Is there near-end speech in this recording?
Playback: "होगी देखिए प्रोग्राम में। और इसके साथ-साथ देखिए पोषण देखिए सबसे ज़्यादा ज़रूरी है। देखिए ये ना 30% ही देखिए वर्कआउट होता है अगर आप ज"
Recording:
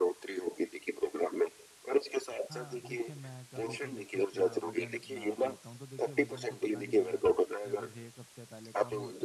Yes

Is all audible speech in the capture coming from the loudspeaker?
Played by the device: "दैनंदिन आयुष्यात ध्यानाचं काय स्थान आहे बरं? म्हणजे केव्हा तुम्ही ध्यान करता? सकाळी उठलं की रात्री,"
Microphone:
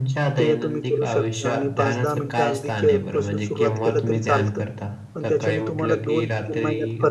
No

